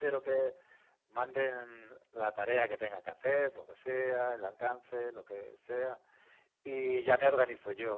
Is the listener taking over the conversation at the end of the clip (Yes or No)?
No